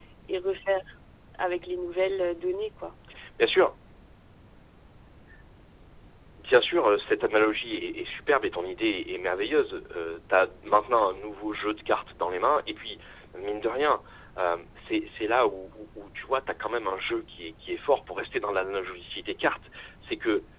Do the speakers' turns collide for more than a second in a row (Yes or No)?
No